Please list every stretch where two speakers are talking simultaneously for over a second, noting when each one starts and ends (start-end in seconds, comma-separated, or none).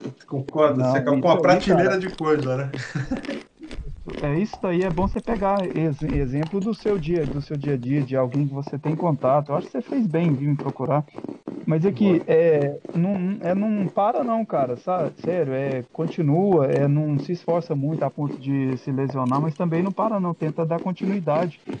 0.7-2.0